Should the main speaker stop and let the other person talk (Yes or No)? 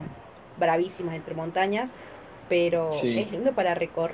No